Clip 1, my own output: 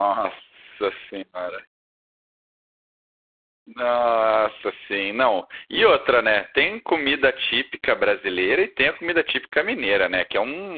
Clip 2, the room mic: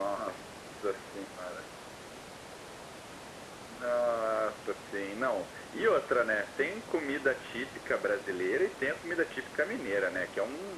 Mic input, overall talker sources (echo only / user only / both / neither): echo only